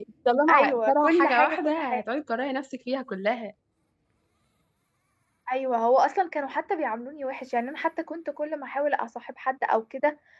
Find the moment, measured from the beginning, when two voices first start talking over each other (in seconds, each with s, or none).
0.5 s